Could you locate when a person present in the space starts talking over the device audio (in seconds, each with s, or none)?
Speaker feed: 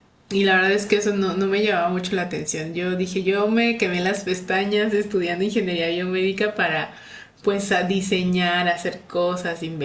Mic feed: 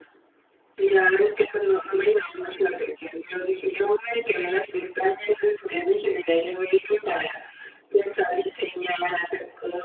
none